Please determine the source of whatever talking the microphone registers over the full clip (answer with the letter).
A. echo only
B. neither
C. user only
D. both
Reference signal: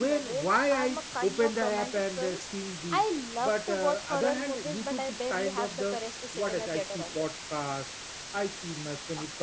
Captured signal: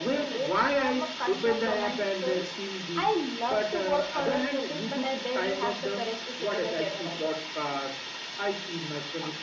A